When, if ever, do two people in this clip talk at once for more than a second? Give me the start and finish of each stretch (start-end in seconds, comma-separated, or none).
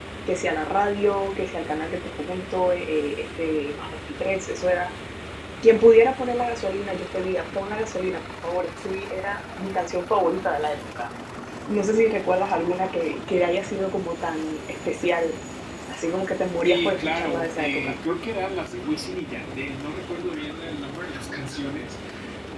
16.7-17.9